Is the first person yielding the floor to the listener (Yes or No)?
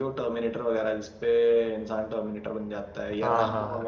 Yes